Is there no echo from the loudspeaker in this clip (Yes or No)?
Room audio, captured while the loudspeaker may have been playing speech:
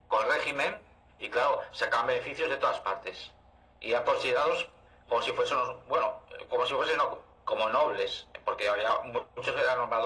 No